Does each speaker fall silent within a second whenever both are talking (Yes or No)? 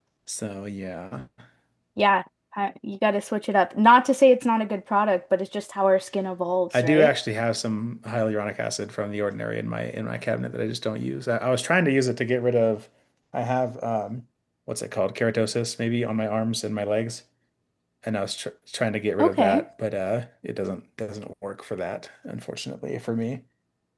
Yes